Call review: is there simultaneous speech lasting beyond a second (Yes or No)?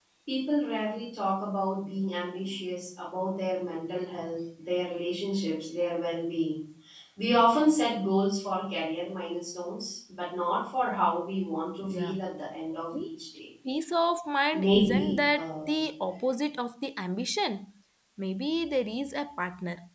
Yes